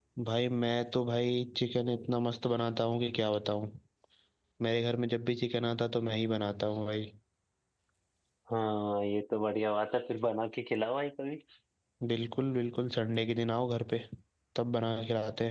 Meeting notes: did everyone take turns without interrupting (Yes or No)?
Yes